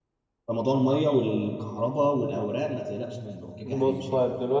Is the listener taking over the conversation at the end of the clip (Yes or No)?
Yes